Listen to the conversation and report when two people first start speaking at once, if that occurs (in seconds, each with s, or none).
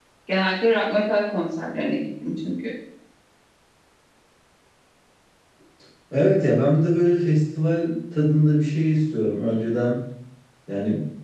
none